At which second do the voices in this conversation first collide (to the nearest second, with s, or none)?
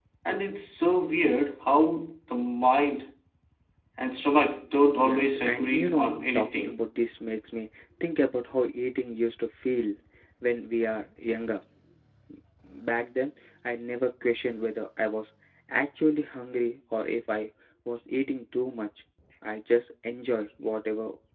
5 s